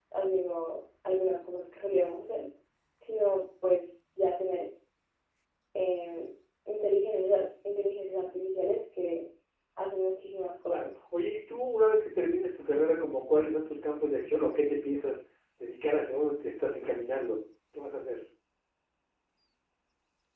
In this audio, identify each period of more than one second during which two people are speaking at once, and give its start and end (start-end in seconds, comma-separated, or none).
none